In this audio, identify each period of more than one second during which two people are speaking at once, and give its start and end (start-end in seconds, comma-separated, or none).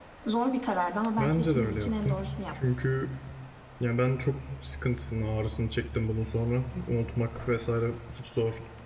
1.2-2.4